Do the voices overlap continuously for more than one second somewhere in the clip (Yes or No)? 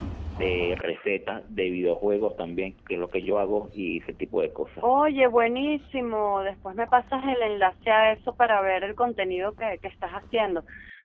No